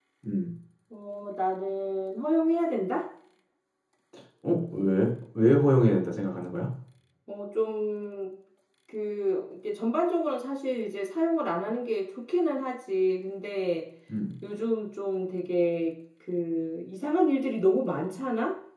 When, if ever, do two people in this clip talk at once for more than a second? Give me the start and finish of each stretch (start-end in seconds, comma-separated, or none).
none